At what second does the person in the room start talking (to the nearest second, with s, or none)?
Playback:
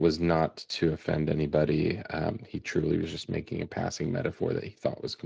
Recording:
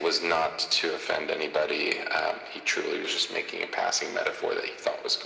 none